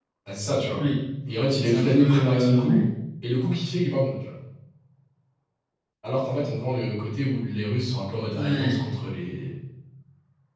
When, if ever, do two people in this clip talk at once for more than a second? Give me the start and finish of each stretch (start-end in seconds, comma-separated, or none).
1.6-2.8